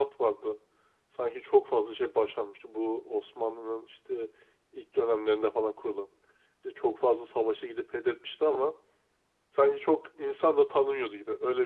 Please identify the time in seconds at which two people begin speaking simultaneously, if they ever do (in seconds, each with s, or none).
none